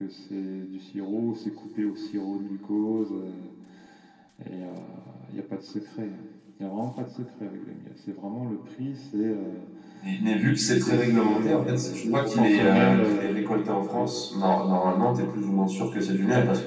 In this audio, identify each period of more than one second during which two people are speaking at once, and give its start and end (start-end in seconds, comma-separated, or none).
10.6-13.3